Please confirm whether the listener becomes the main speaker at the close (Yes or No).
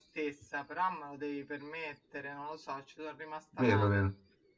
Yes